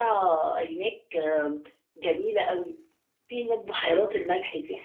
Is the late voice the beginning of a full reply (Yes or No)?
No